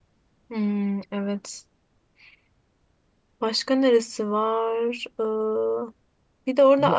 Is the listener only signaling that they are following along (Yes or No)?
Yes